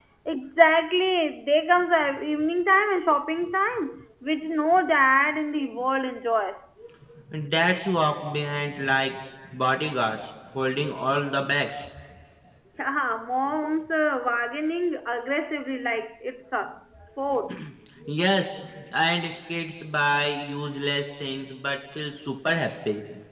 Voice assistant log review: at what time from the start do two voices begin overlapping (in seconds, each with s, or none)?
none